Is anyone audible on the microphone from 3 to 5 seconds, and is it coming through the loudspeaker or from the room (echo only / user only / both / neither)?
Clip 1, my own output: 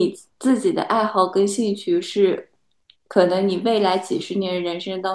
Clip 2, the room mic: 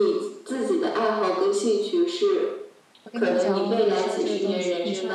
both